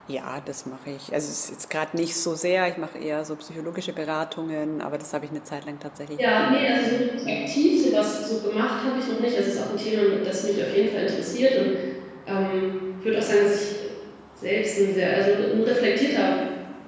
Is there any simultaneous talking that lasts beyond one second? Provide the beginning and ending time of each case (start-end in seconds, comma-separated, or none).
6.2-7.6